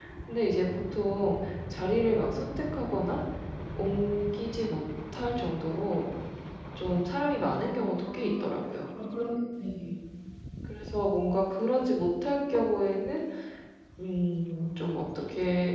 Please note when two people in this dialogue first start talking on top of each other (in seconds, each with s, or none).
7.4 s